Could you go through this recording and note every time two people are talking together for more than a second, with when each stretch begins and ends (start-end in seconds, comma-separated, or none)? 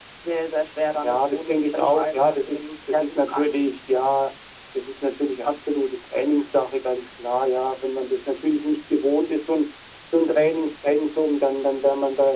1.0-3.6